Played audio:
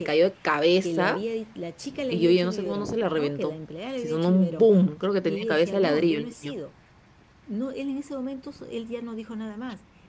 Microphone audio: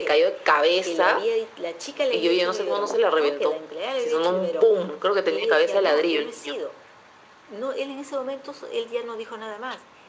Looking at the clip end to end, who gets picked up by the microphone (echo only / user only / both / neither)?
echo only